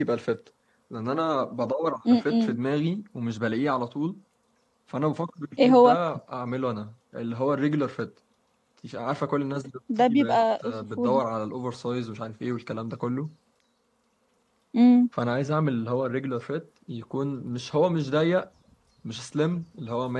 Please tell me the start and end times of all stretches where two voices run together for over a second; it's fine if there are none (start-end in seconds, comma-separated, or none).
10.0-11.2